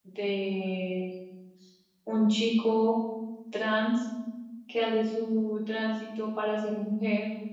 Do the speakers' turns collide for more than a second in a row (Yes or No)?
No